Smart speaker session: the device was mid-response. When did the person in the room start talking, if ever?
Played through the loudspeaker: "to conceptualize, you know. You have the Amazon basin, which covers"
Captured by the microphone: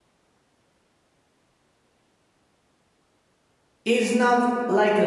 3.8 s

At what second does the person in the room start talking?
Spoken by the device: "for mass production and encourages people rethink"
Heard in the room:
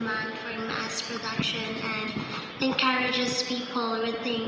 none

